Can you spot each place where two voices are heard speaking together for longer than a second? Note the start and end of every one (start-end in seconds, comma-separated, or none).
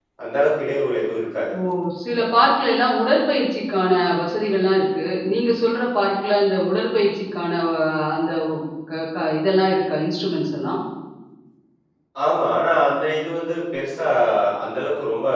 none